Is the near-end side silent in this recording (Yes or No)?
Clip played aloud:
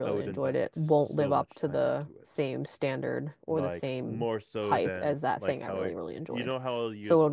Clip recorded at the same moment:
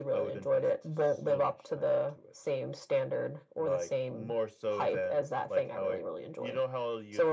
Yes